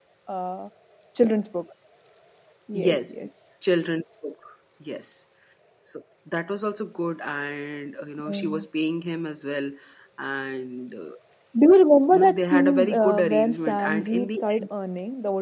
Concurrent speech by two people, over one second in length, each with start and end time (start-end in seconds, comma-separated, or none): 12.1-14.7